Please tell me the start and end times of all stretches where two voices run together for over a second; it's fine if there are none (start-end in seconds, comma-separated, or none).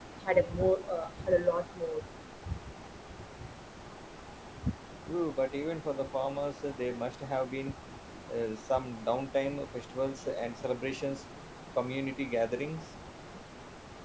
none